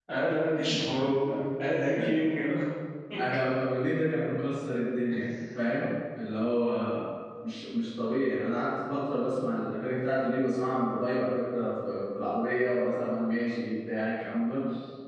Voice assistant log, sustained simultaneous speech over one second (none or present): none